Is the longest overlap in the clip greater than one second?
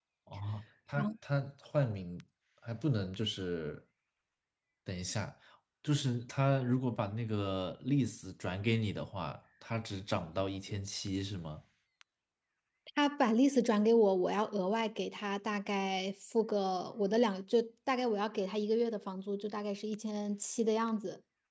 No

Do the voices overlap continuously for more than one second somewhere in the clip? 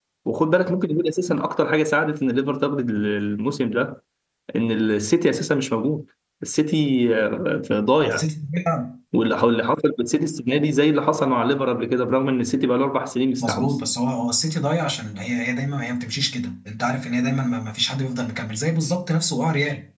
No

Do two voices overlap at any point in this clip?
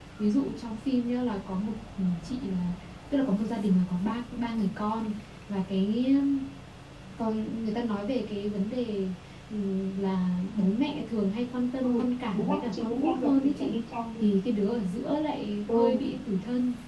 Yes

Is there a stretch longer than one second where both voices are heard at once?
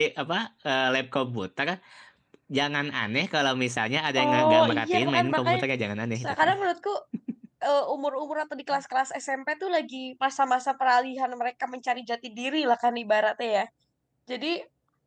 Yes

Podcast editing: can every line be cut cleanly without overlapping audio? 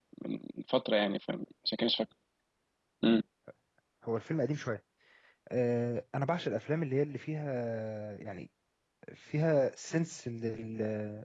Yes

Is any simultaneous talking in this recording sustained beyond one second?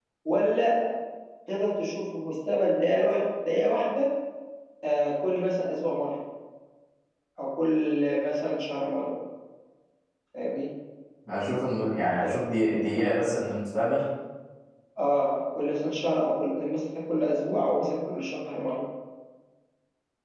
No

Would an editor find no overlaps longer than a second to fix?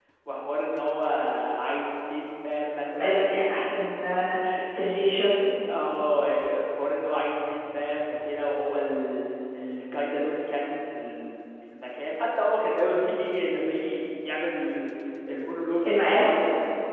Yes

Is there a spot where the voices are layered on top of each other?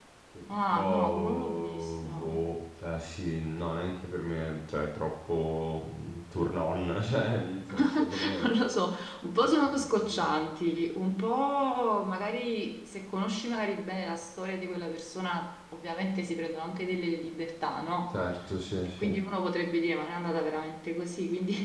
Yes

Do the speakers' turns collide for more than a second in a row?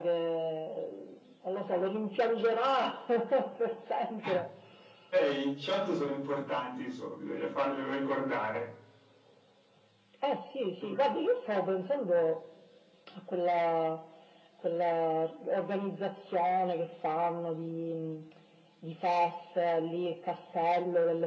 No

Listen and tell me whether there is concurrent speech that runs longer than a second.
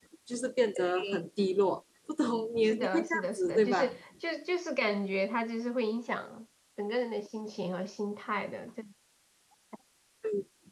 Yes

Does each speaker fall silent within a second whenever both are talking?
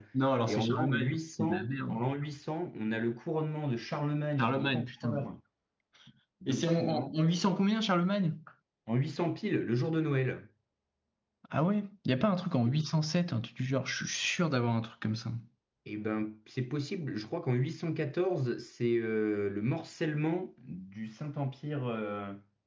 No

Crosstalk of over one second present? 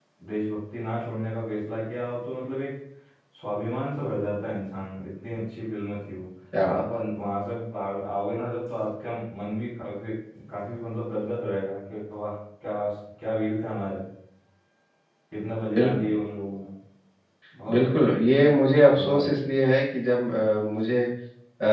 No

